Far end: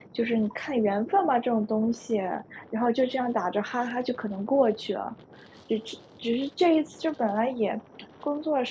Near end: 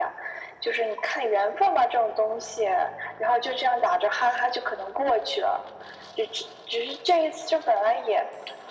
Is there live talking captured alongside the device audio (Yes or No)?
No